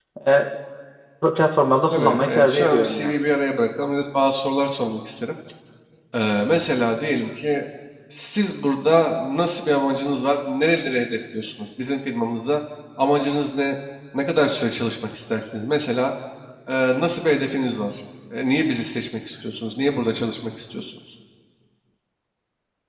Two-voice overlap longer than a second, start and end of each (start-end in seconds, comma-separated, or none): 1.9-3.1